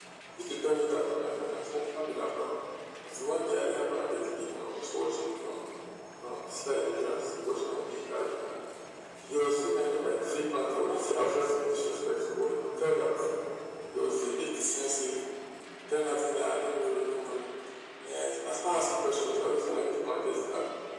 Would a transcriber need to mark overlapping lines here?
No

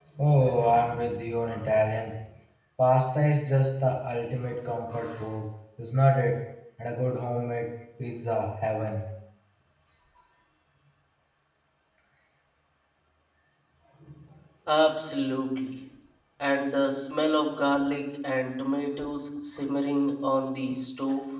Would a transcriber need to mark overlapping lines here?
No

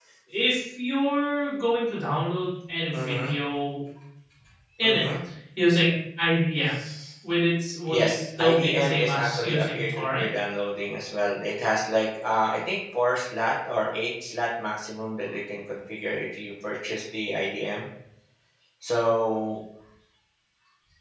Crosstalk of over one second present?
Yes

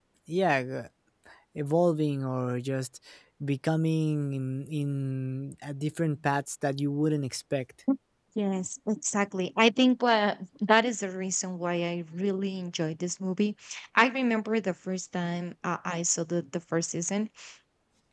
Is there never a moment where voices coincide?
Yes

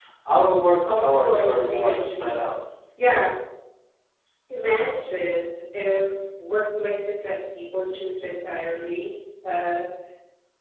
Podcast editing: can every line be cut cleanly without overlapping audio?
No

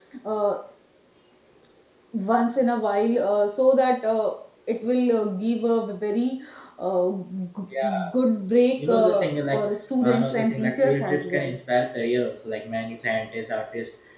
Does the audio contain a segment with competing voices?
Yes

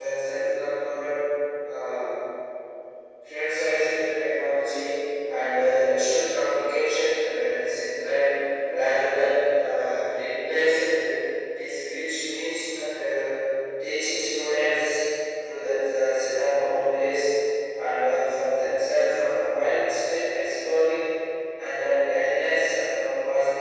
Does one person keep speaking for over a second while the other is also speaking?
No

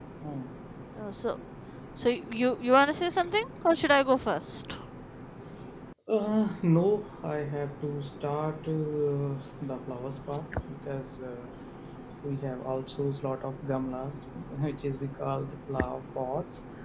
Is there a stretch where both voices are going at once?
No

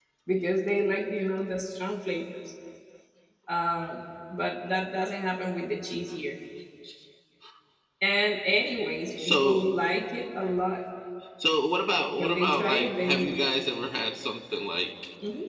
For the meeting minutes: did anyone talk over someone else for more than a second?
Yes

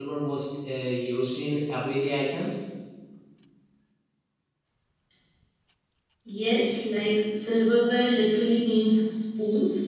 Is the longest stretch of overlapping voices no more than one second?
Yes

